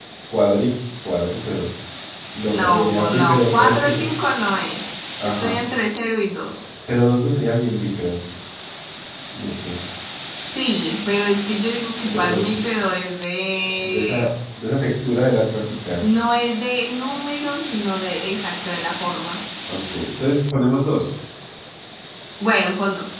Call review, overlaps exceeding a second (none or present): present